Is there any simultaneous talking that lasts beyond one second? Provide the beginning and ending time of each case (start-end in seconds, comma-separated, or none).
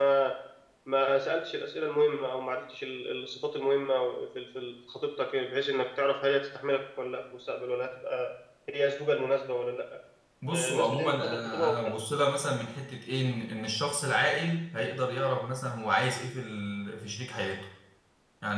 10.5-11.9